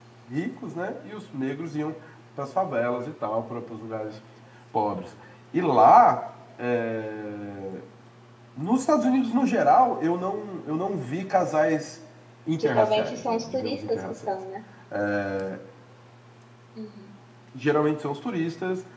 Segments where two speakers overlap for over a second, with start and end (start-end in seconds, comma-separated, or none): 12.6-14.3